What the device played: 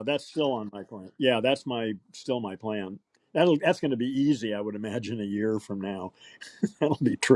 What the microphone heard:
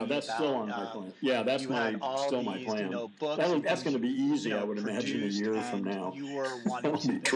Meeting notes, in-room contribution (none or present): present